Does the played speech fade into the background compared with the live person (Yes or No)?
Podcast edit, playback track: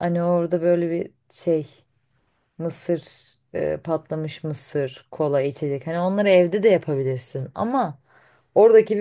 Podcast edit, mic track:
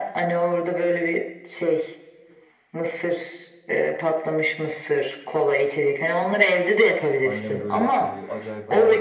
No